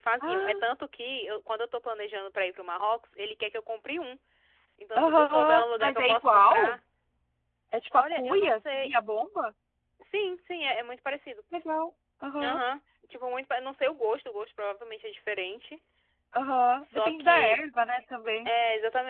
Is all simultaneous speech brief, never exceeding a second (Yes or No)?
No